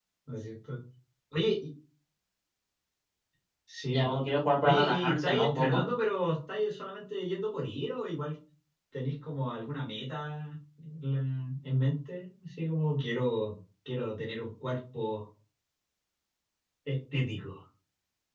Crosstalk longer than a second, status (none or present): present